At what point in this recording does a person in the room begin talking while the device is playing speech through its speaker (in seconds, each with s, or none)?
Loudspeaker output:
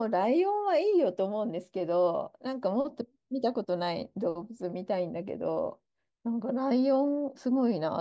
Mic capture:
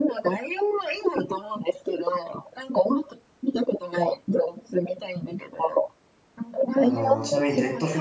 6.7 s